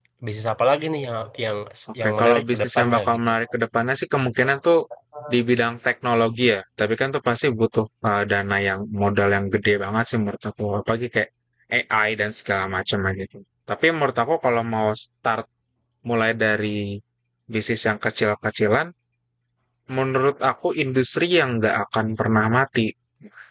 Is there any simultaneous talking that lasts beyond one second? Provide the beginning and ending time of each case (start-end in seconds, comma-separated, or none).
2.0-3.3